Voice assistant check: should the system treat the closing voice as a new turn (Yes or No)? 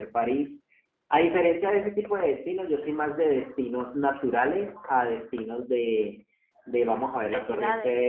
No